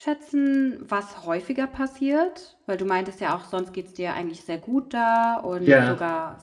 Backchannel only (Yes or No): Yes